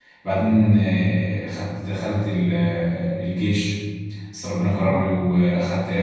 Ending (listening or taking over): listening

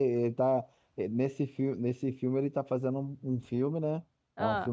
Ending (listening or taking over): listening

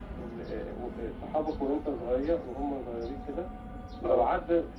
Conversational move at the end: listening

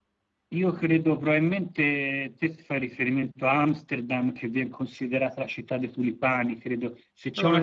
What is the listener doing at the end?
listening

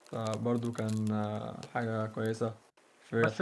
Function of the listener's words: taking over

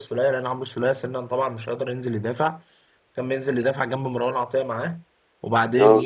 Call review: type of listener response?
listening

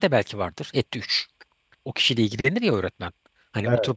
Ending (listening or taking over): listening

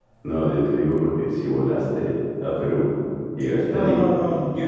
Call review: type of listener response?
taking over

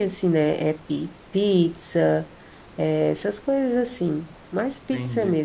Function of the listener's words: taking over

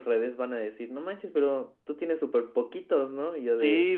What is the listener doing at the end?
taking over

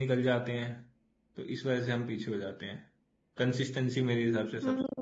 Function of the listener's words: taking over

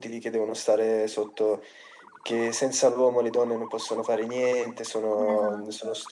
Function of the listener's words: listening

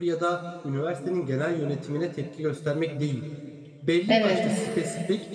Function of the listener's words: listening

